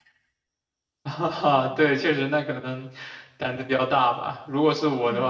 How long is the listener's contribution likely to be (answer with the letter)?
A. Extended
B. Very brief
B